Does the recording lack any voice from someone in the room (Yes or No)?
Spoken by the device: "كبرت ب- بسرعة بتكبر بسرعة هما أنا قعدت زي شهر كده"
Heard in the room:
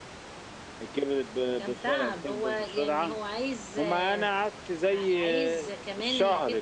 No